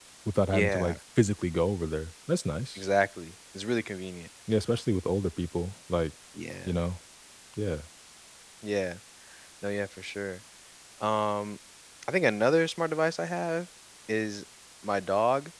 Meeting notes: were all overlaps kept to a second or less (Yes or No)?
Yes